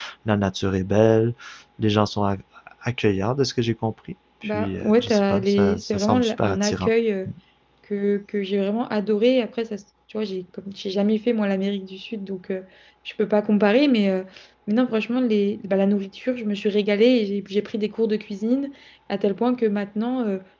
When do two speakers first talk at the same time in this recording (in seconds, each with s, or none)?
4.4 s